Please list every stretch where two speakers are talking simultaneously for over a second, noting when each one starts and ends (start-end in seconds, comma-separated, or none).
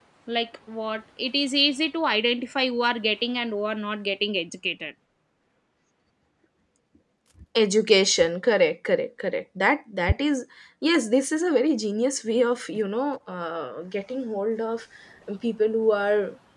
none